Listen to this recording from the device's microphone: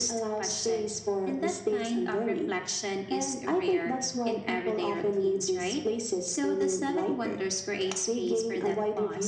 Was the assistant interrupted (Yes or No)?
No